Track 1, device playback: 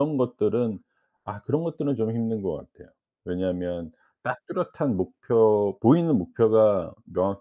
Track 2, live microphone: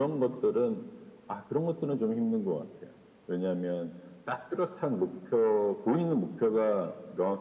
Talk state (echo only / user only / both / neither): echo only